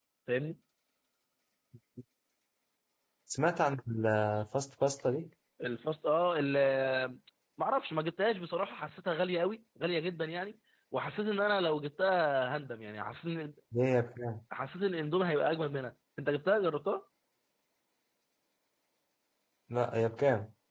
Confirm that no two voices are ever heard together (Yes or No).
Yes